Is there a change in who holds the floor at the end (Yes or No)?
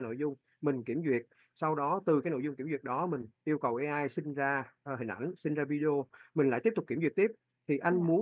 No